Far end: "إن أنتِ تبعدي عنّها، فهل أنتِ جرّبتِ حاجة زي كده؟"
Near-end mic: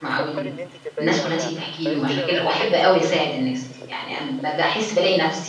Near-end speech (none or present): present